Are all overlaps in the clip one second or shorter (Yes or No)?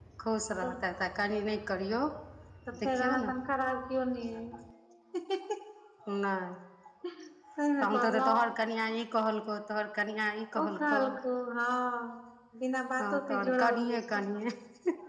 No